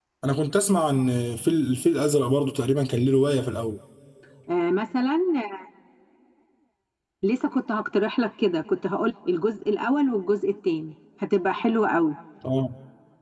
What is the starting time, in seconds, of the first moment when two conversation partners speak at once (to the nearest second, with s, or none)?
none